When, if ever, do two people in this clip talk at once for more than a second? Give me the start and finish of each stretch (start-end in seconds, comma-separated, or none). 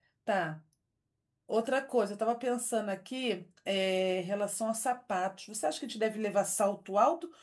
none